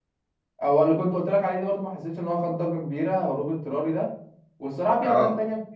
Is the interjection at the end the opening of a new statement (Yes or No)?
No